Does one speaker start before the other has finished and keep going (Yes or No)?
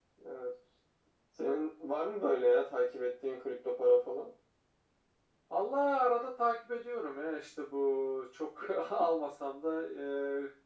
No